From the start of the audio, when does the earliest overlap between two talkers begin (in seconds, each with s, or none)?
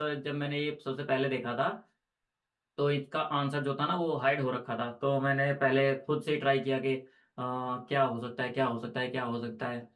none